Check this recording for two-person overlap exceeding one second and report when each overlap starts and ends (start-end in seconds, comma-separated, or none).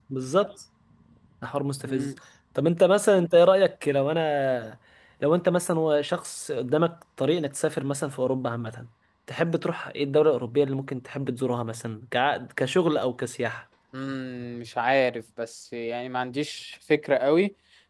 none